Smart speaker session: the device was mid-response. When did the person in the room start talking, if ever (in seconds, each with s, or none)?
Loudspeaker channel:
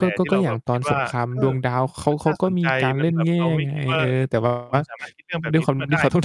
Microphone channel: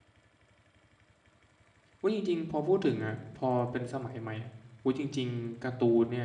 2.0 s